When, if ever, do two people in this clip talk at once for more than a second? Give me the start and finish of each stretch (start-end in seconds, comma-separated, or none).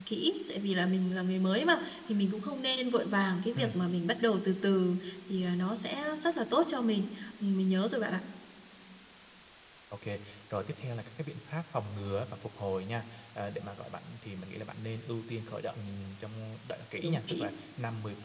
none